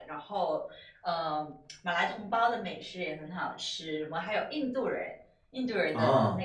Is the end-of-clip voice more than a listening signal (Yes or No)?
No